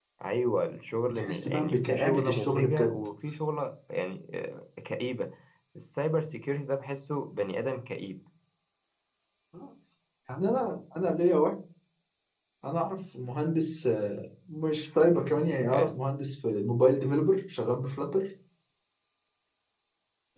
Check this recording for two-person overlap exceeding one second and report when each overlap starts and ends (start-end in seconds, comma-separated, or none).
1.1-3.0